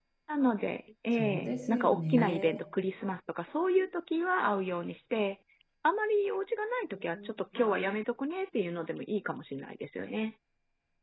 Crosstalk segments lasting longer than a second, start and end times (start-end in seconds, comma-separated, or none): 1.2-2.5